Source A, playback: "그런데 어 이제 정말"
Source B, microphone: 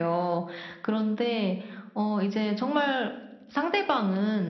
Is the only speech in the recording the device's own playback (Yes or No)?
Yes